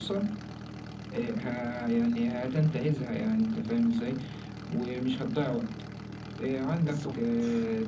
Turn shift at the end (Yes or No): No